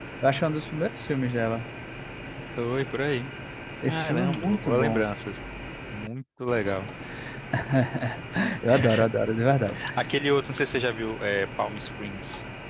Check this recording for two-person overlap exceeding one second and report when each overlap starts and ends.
3.9-5.1

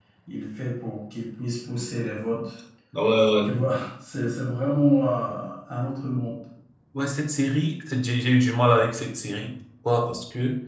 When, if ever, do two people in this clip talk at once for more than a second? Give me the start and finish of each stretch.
none

